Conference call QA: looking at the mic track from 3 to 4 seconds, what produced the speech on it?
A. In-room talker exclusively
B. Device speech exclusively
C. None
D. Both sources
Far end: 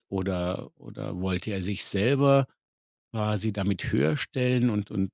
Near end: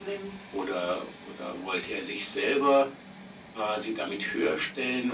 B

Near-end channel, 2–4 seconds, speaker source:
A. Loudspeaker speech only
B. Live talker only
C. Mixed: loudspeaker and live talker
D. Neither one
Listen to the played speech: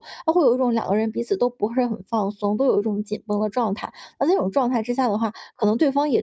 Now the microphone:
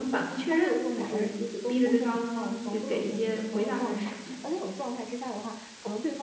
C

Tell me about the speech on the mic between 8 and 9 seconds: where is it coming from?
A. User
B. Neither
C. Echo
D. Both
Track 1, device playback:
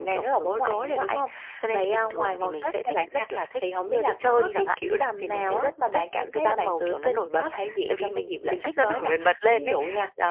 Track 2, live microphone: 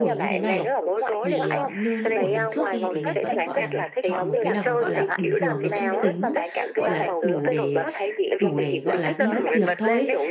D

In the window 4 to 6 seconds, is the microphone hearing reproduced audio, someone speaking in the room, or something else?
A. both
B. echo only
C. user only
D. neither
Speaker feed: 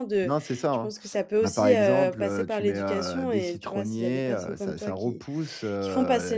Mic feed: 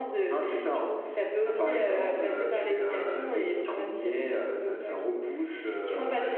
B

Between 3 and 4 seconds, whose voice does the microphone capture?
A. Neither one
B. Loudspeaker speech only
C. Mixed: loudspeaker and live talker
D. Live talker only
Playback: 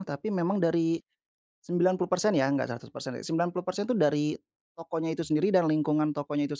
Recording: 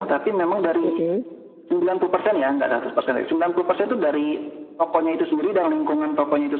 B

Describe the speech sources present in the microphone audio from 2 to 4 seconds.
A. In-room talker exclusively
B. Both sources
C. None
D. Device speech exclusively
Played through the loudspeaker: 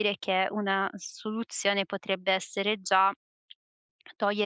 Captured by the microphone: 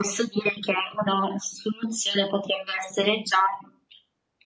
D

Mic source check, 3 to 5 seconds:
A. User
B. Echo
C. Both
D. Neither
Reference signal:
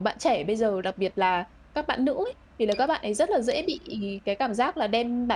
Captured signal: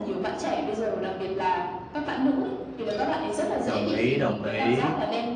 C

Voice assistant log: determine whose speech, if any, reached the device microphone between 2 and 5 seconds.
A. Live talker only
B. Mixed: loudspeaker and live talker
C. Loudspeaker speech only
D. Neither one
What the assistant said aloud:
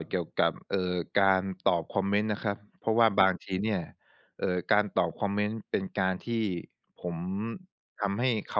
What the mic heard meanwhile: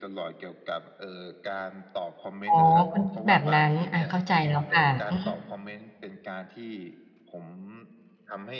B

